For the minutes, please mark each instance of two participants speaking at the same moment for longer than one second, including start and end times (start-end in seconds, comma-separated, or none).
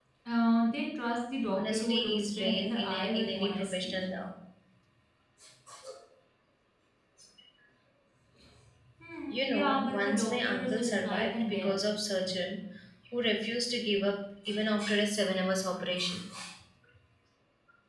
1.5-4.0, 9.3-11.7